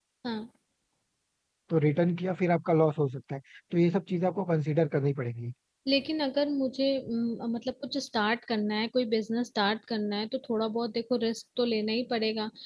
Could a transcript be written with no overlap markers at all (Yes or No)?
Yes